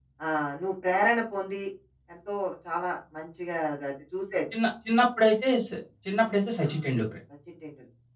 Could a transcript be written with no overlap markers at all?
Yes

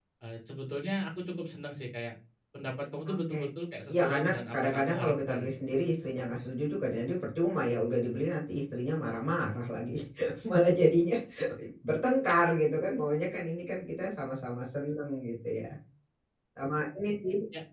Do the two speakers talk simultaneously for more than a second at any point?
Yes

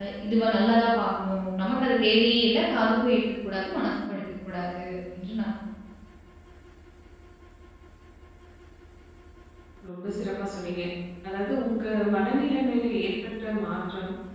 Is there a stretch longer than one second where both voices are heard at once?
No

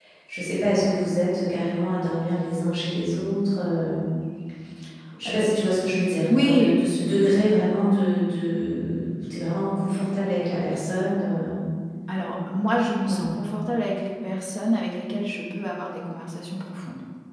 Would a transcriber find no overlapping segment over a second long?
Yes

